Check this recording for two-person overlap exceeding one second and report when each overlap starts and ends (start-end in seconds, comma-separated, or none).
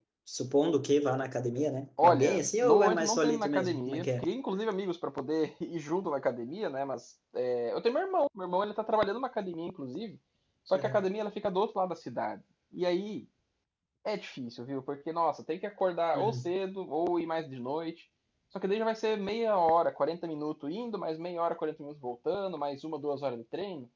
2.0-4.2